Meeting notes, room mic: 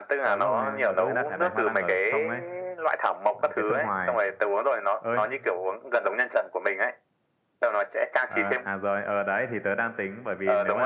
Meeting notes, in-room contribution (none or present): present